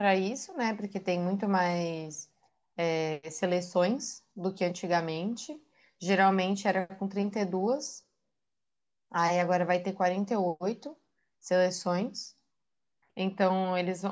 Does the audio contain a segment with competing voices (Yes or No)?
No